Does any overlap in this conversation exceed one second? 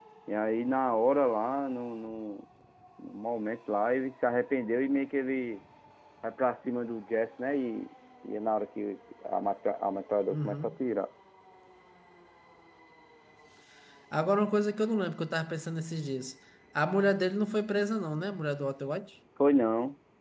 No

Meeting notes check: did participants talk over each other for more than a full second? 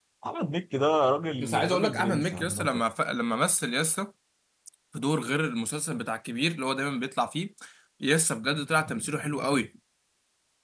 Yes, from 1.4 s

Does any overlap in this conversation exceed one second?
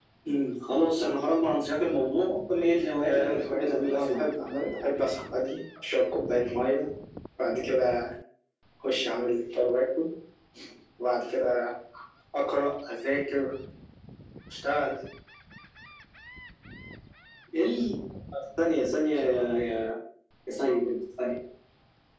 Yes, from 3.0 s

